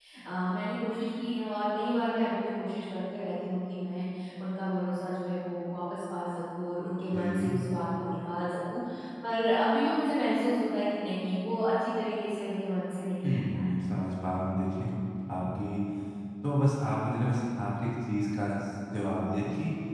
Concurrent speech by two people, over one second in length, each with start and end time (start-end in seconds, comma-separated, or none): none